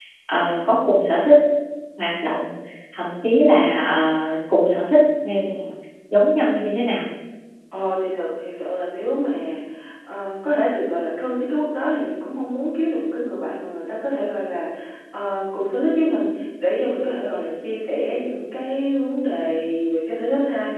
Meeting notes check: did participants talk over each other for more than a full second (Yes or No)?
No